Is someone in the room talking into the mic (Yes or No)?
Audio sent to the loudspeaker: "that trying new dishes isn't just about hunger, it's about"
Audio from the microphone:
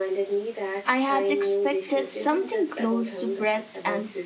Yes